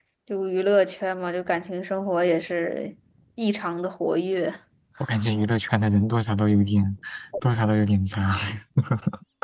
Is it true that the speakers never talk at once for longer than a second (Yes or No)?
Yes